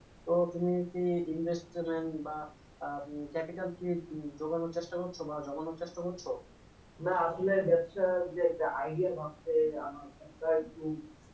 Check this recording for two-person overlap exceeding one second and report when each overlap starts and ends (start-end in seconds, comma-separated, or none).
none